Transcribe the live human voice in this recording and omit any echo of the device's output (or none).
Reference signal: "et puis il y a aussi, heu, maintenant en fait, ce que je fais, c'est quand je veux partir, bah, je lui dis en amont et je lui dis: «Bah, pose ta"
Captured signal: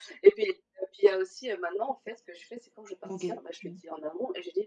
OK. Mmh.